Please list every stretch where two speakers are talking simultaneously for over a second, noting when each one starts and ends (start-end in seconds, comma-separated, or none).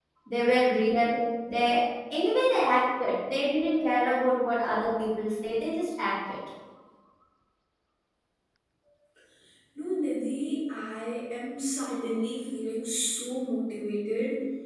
none